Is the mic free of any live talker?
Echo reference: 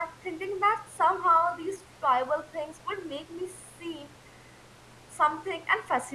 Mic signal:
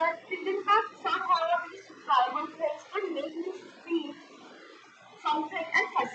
Yes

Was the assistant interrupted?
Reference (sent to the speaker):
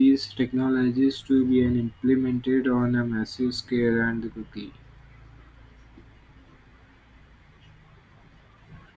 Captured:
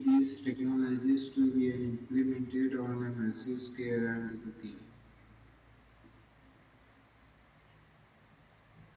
No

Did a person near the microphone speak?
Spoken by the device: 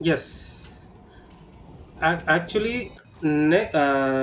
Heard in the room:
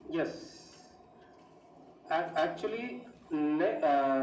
No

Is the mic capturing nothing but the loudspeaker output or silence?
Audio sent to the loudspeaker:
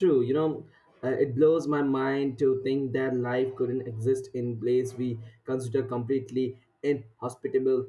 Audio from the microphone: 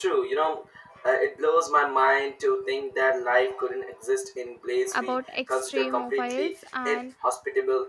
No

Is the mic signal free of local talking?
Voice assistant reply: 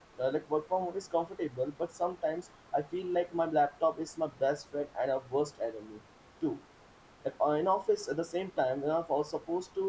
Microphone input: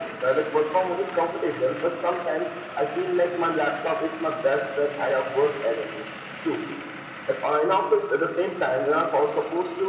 Yes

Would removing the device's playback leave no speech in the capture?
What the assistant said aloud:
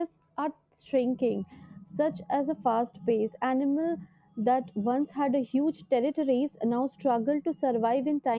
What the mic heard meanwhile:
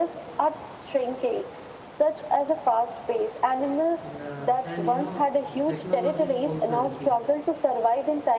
No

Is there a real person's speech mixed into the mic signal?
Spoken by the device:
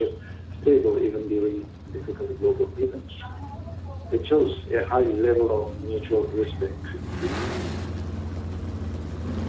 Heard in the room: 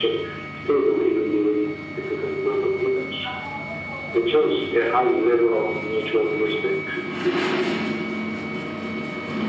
No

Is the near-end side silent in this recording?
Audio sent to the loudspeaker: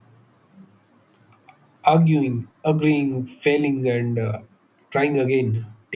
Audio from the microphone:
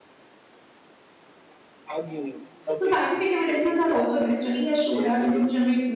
No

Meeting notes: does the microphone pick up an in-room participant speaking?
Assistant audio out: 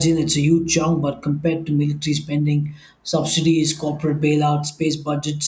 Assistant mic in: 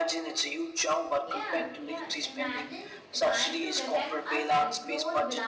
Yes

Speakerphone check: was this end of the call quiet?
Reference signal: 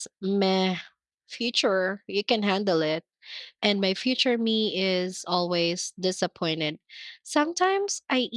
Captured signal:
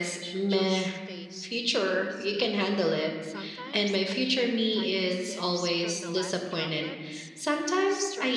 No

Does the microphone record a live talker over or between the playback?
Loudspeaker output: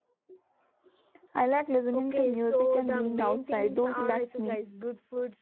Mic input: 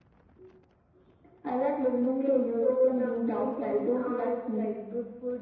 No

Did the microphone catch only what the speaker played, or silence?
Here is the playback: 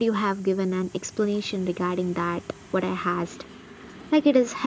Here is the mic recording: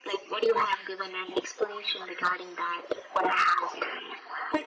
Yes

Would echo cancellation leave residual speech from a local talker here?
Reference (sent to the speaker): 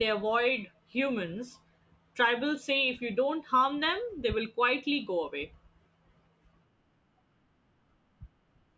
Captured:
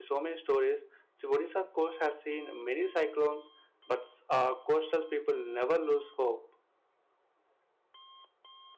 Yes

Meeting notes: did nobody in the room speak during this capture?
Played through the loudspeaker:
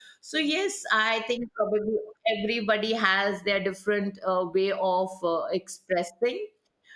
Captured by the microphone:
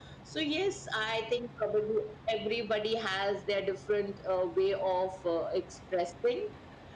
Yes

